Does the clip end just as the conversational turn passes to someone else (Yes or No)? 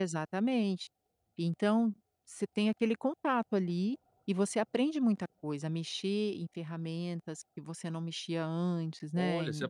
Yes